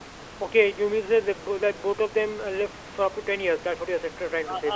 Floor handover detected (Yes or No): Yes